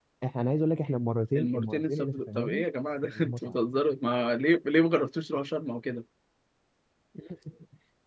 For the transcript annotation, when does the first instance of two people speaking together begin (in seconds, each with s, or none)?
1.3 s